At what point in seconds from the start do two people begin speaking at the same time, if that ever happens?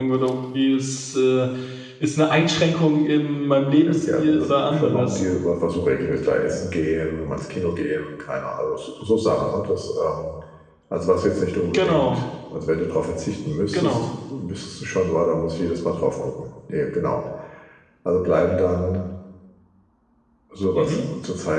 4 s

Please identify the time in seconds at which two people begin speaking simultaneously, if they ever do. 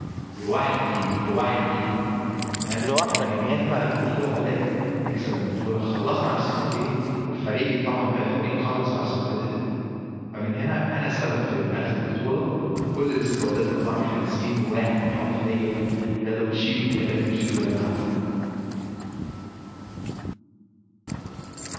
3 s

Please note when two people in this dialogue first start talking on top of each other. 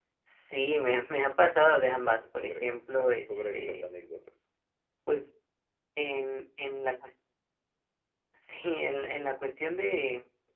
2 s

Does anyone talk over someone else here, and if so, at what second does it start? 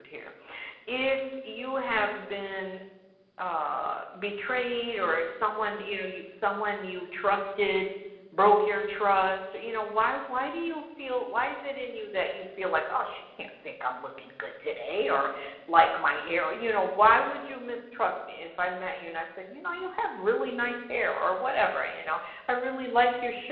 none

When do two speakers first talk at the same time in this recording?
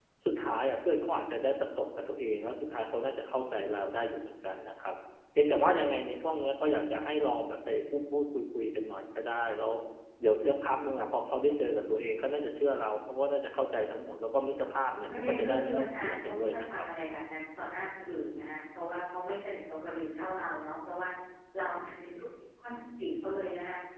15 s

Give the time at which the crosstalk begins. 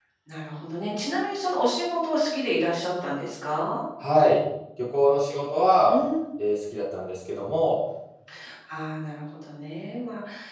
none

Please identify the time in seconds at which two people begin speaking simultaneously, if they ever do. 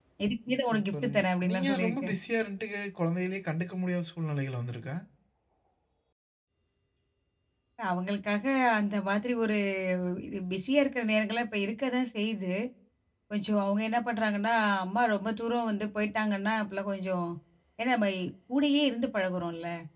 1 s

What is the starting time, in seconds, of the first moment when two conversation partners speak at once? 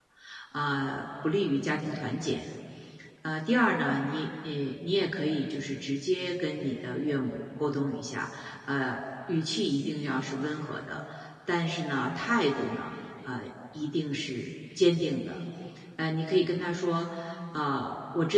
none

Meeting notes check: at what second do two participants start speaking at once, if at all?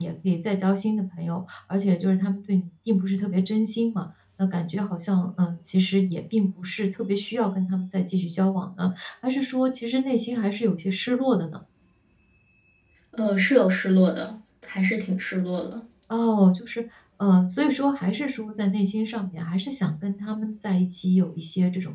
none

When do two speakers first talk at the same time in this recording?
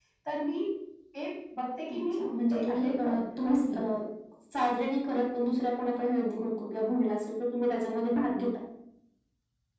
2 s

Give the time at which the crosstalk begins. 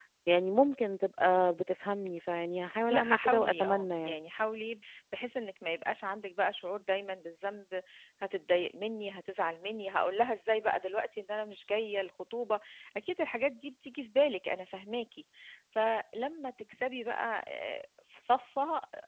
3 s

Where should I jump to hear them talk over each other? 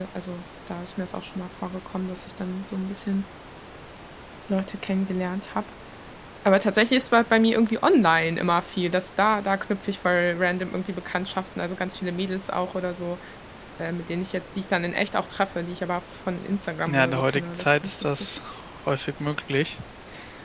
17 s

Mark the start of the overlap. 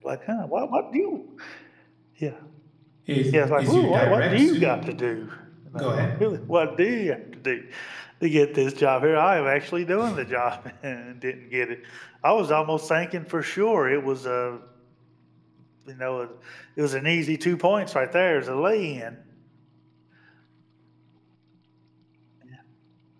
3 s

